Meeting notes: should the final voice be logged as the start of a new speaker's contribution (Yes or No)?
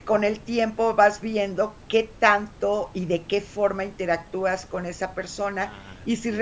No